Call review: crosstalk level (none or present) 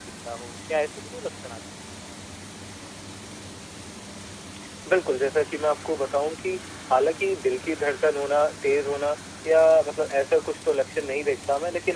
none